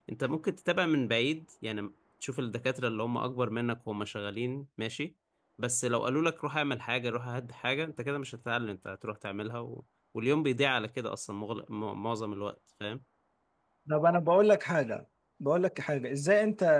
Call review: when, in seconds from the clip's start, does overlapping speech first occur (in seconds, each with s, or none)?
none